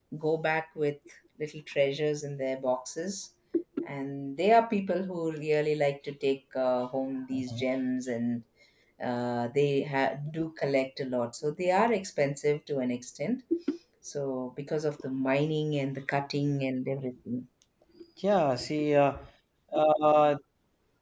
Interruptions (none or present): none